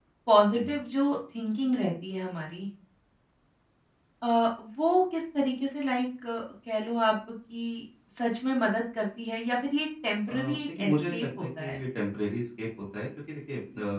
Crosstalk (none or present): present